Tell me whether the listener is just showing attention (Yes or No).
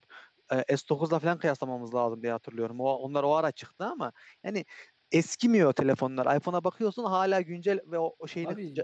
Yes